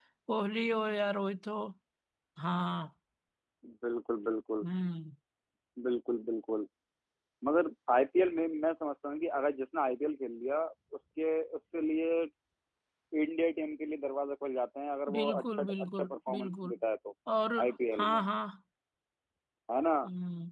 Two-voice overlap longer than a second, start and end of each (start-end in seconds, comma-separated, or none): 15.1-16.7